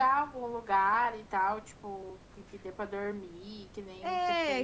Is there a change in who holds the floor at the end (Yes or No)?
Yes